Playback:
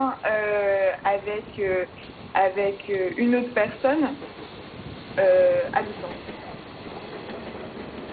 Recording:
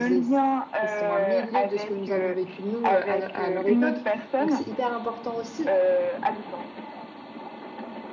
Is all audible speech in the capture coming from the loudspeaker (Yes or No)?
No